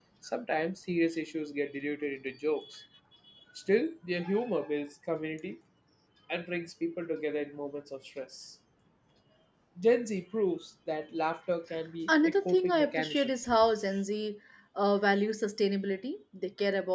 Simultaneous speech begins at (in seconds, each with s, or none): 12.1 s